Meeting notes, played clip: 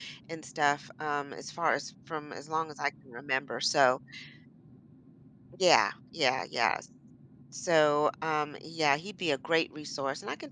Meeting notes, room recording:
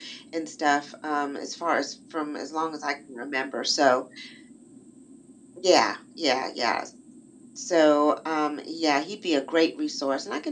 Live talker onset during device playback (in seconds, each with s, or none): none